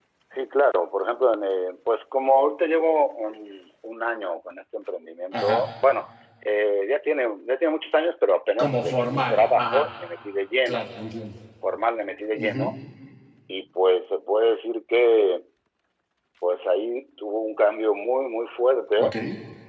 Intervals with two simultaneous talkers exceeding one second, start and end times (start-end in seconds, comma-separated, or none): 8.6-9.9